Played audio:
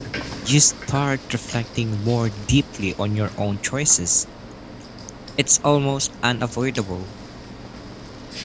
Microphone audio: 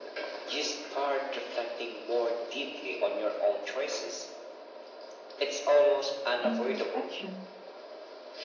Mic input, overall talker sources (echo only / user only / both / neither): both